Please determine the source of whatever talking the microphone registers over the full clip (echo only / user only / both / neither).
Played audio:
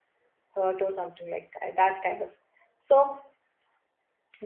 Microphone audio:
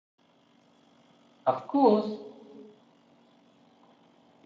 user only